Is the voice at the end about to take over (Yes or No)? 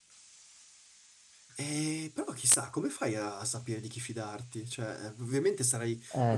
No